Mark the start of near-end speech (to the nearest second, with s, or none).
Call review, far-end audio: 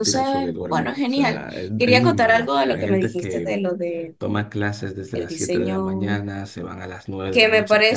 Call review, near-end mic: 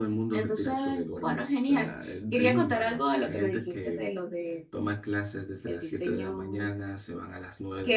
none